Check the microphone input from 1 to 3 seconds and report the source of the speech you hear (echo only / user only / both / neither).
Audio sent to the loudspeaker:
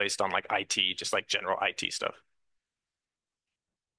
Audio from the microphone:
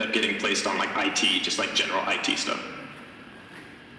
echo only